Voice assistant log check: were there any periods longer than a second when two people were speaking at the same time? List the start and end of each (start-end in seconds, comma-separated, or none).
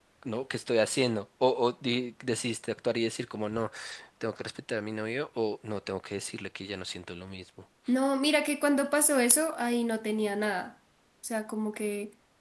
none